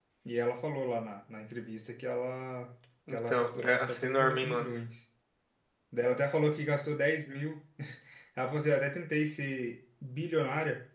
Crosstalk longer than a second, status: present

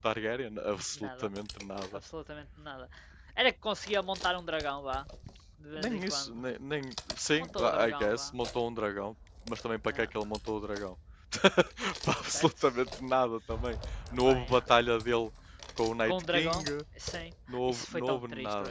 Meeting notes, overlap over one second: present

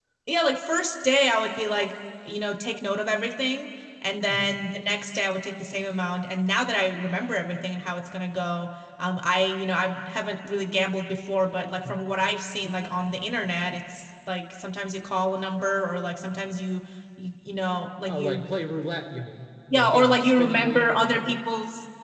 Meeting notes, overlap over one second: present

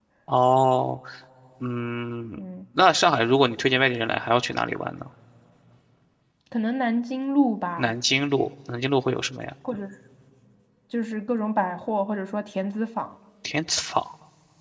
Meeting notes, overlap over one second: none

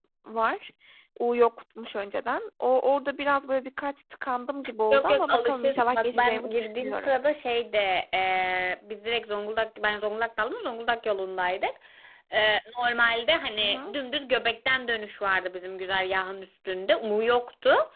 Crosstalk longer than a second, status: present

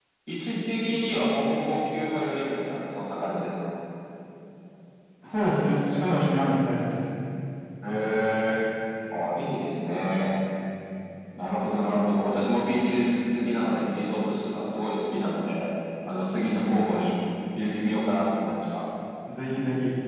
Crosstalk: none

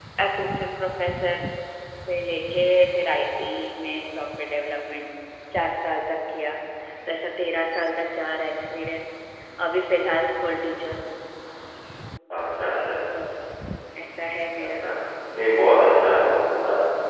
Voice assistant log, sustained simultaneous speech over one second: none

